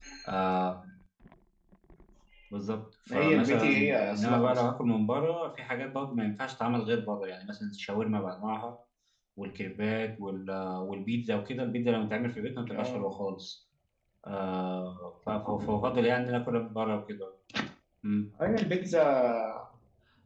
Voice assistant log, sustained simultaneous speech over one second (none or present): present